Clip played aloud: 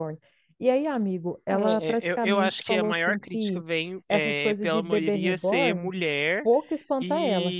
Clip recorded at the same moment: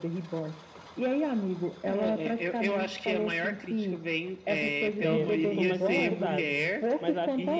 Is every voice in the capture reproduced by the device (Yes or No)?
No